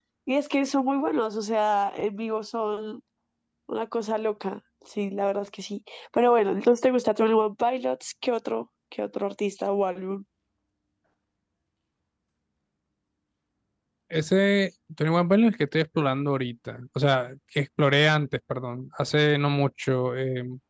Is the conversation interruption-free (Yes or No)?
Yes